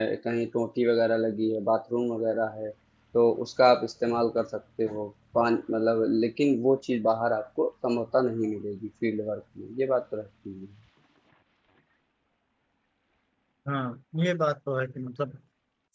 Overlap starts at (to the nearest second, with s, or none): none